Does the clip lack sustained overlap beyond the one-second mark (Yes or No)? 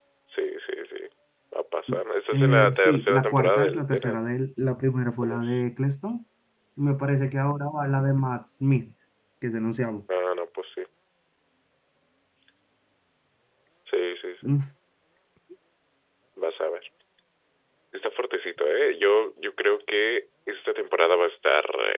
No